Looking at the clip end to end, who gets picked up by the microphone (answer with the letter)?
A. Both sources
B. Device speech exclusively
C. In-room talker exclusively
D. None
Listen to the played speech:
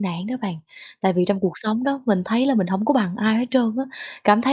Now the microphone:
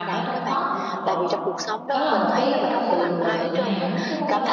A